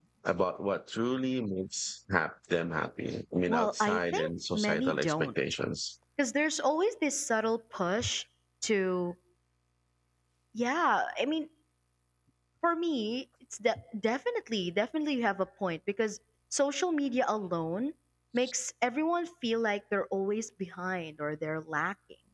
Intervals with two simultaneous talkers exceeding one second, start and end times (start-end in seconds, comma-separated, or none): 3.5-5.3